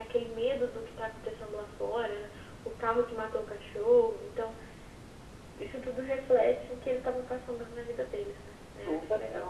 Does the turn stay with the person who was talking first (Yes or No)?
No